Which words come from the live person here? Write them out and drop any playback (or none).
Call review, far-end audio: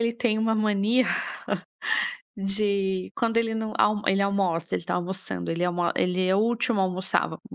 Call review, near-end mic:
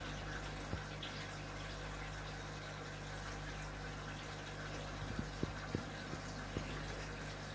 none